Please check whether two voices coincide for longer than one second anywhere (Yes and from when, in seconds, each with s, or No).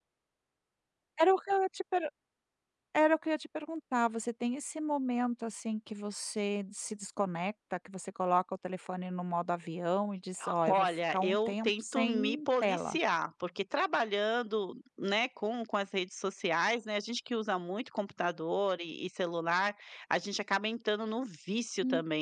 Yes, from 10.7 s